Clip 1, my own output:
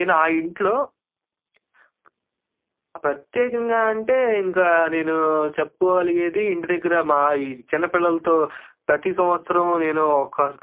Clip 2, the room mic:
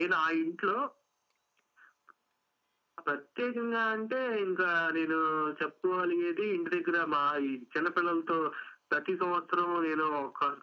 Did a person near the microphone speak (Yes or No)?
No